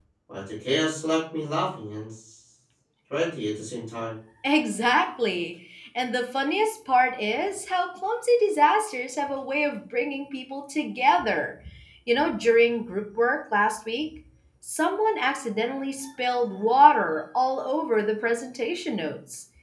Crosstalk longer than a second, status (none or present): none